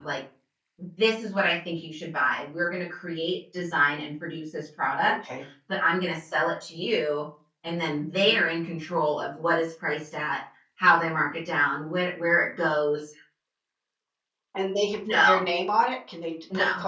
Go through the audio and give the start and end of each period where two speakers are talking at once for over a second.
none

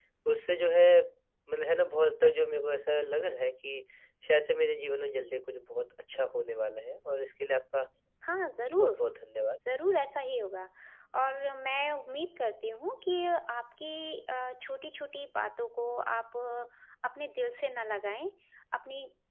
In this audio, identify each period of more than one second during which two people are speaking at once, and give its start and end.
none

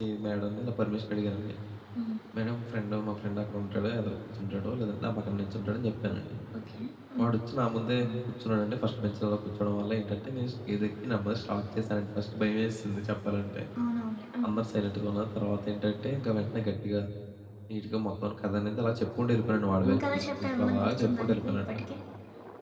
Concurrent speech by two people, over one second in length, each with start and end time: 19.8-21.6

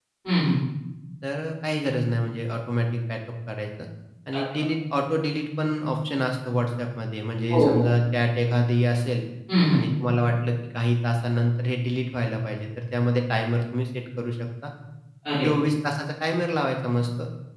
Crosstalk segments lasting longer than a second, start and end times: none

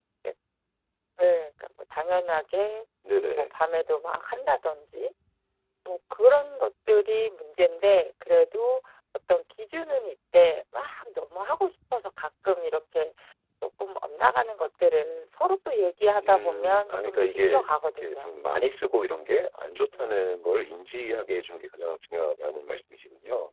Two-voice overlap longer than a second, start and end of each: 16.3-18.3

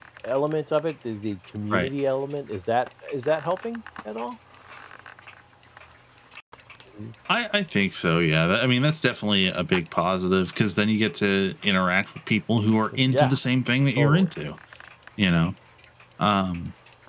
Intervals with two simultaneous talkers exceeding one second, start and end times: none

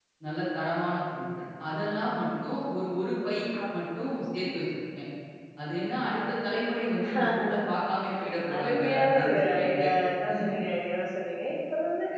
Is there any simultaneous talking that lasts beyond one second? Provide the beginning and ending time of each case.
8.5-9.9

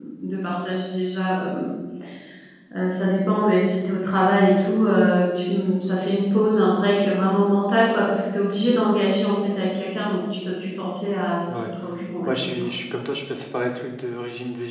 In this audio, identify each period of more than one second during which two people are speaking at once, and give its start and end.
none

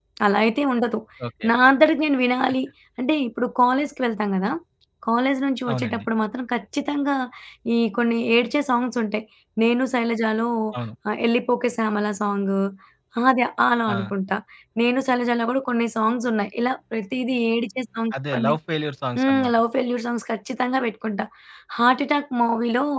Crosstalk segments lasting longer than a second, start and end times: none

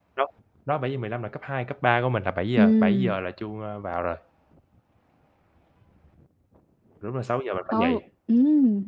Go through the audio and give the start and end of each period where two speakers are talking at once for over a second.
none

